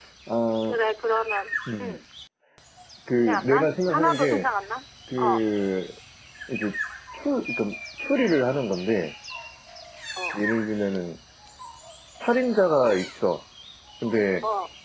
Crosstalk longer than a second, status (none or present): present